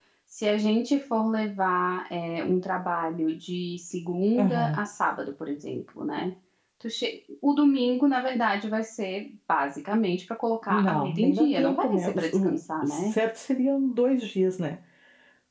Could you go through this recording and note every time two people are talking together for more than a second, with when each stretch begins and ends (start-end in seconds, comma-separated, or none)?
10.7-13.1